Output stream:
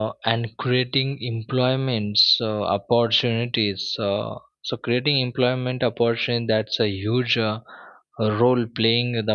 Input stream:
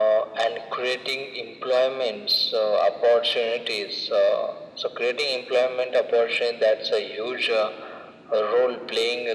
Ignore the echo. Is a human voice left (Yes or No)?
No